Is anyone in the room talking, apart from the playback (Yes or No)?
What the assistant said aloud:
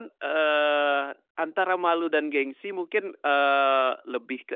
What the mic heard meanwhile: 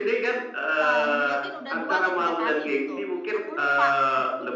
Yes